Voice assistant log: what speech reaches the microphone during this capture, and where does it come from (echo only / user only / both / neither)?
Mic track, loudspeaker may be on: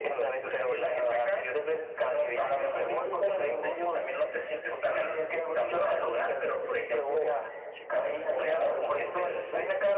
echo only